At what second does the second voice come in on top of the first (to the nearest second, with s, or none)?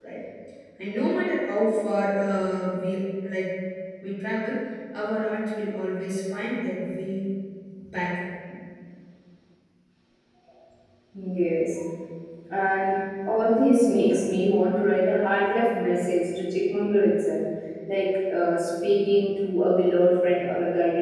none